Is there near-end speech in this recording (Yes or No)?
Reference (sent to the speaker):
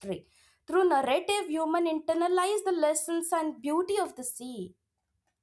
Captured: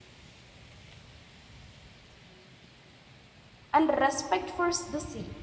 Yes